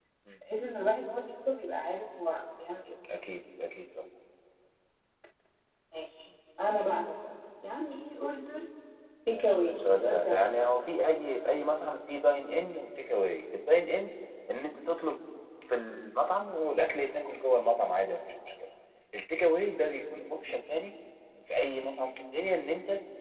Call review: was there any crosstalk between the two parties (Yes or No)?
Yes